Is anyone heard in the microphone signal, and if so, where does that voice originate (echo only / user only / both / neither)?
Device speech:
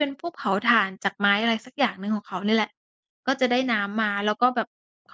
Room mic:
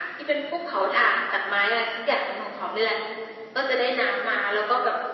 echo only